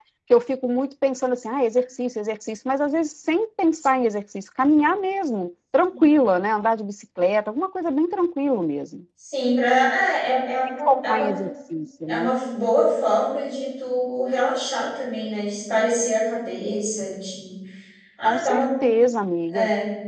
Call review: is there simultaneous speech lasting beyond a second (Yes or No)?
No